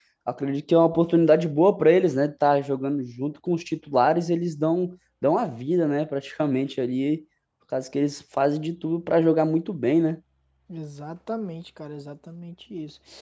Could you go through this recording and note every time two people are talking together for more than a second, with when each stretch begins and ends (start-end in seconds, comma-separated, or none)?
none